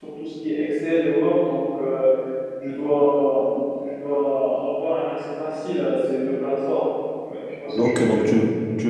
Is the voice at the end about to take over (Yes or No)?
Yes